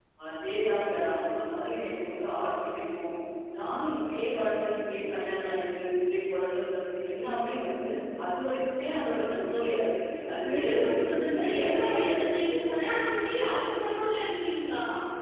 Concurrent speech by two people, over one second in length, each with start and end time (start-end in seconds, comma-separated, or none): 10.5-12.1